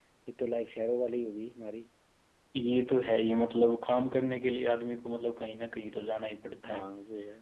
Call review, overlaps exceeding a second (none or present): none